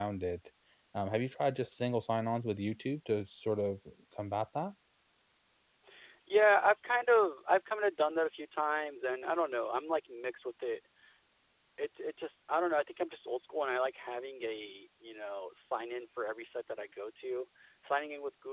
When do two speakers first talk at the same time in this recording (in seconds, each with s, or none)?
none